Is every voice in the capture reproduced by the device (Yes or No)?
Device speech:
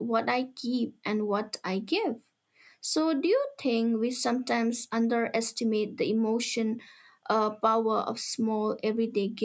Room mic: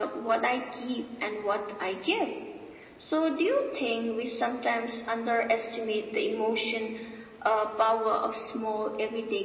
Yes